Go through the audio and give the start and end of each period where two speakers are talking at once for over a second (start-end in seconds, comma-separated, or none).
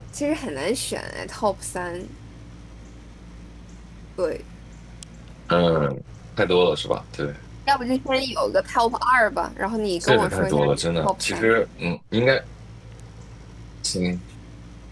10.0-11.5